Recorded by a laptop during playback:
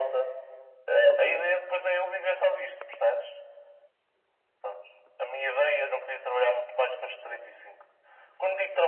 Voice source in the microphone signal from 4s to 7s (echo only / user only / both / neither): echo only